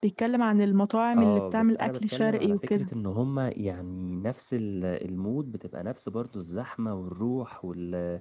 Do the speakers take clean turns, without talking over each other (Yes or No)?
No